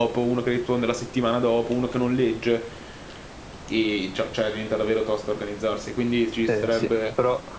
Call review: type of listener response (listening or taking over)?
taking over